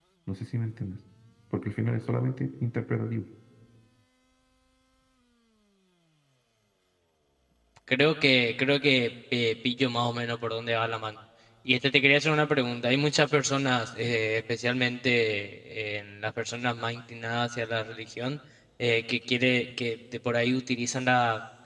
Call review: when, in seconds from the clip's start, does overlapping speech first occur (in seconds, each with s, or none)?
none